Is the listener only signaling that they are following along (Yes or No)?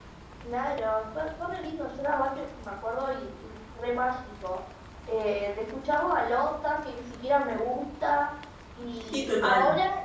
Yes